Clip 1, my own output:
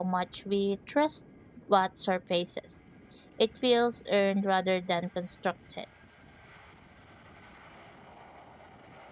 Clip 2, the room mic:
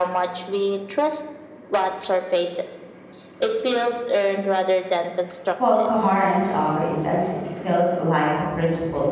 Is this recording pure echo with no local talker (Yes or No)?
No